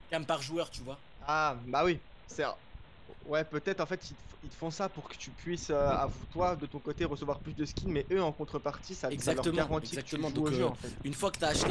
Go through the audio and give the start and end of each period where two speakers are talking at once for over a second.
9.1-10.7

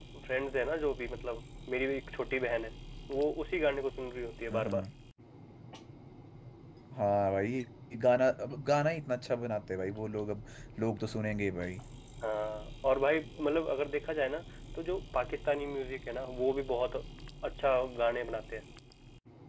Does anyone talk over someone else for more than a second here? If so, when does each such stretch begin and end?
none

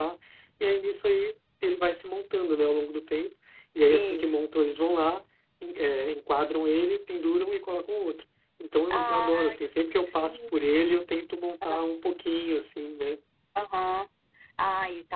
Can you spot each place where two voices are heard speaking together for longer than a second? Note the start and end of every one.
8.9-10.6

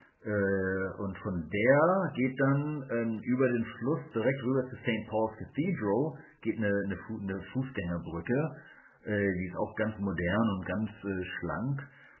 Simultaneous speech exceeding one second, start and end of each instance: none

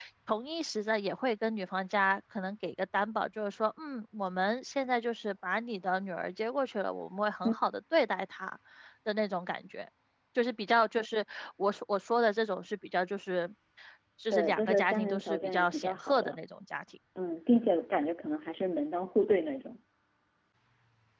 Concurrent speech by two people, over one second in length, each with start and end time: 14.3-16.4

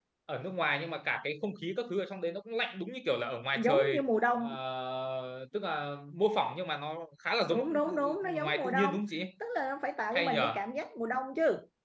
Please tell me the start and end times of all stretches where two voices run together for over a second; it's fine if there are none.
7.5-8.9

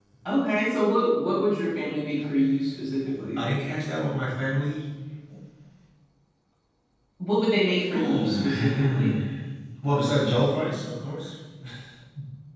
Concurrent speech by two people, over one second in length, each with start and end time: 7.9-9.1

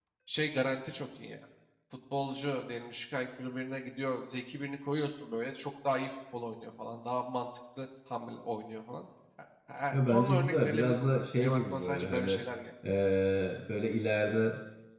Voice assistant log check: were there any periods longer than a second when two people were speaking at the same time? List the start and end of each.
9.9-12.3

